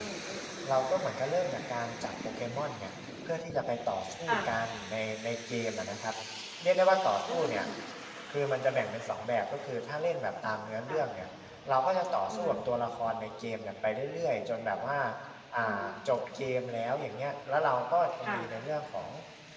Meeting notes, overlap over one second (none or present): none